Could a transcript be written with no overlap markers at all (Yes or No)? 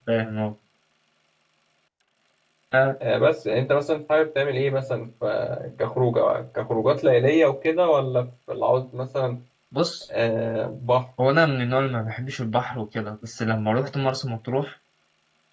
Yes